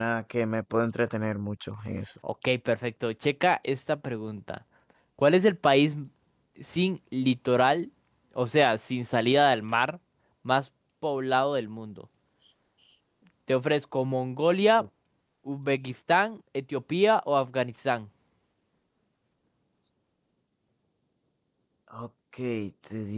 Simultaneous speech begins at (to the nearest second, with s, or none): none